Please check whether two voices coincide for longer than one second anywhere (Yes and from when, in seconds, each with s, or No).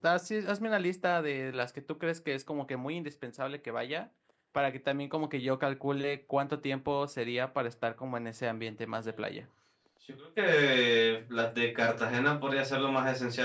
No